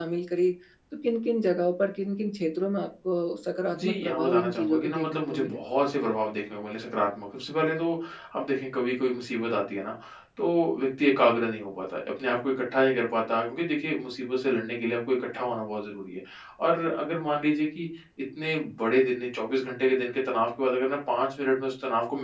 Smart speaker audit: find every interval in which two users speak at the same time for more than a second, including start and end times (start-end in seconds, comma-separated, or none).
3.7-5.6